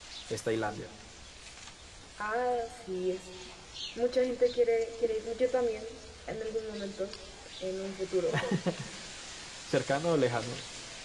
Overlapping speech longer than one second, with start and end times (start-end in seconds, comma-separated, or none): none